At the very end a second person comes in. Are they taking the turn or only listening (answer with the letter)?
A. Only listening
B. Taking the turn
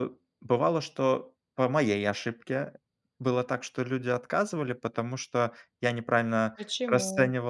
A